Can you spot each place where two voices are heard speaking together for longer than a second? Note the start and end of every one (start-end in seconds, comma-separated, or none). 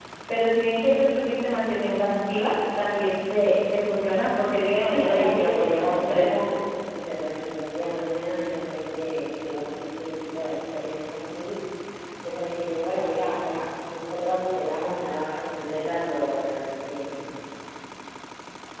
4.8-6.3